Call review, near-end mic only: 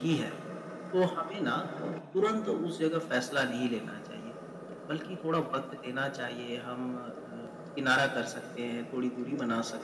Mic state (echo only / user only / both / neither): echo only